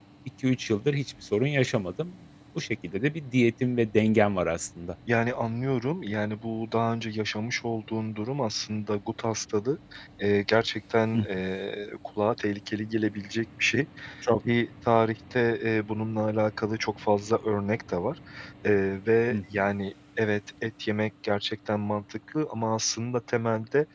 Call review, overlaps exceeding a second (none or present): none